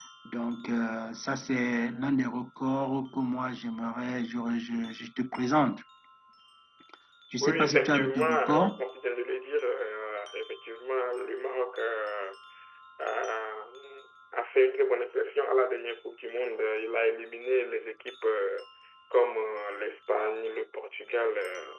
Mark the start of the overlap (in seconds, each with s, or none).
7.4 s